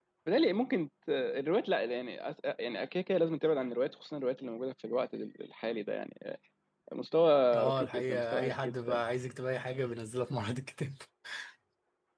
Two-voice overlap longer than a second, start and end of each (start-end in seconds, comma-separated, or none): 7.5-9.0